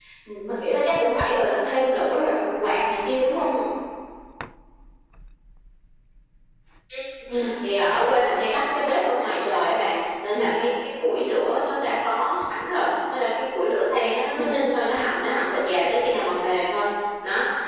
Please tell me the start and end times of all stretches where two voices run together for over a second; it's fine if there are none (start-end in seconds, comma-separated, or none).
none